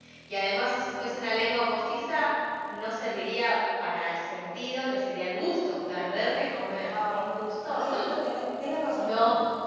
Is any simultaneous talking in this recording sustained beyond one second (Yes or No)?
No